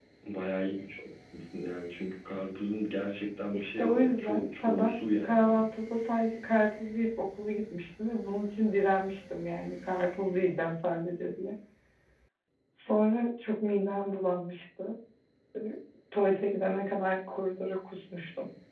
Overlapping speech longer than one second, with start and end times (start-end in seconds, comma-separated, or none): 3.5-5.7